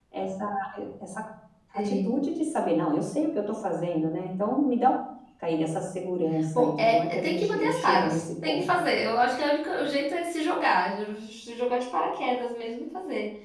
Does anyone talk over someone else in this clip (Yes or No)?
Yes